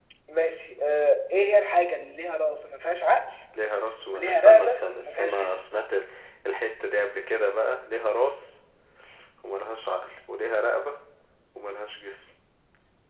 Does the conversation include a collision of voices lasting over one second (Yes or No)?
Yes